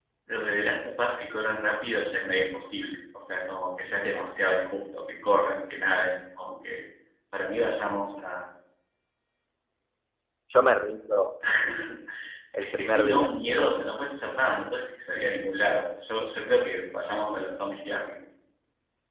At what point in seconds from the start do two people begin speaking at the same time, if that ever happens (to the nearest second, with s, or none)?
13 s